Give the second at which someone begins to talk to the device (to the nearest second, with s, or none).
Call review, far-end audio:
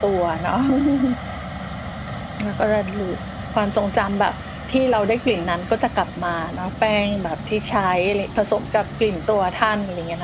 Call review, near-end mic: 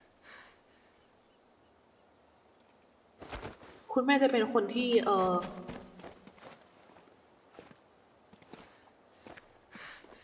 4 s